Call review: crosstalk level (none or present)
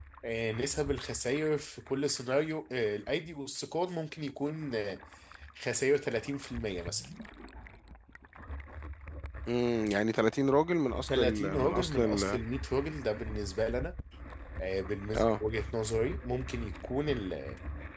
present